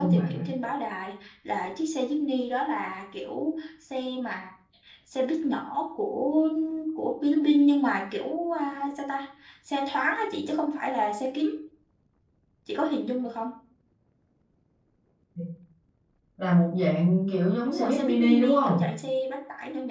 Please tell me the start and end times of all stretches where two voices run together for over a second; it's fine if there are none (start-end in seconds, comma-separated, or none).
17.6-18.9